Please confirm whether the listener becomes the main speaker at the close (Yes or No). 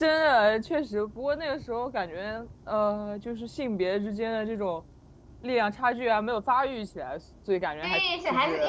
Yes